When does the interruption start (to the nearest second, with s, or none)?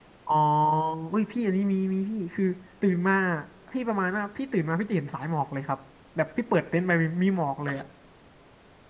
none